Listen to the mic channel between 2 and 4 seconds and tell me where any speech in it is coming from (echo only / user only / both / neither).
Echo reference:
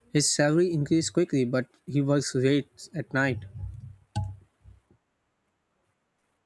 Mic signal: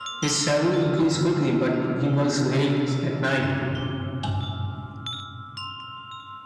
echo only